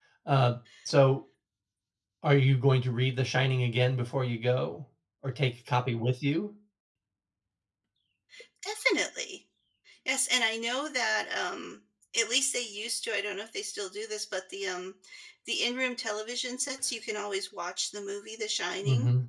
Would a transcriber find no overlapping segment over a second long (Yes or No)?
Yes